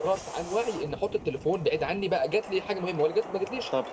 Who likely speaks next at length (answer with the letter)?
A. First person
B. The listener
B